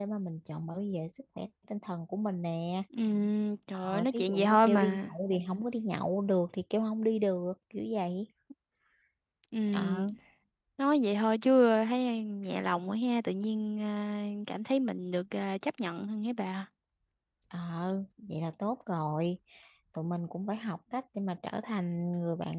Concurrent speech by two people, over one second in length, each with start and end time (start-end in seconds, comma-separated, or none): 3.7-5.1